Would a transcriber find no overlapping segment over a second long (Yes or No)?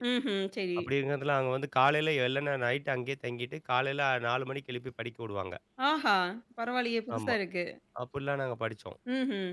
Yes